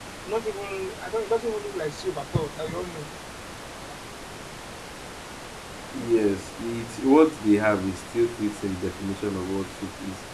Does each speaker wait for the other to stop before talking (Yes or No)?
Yes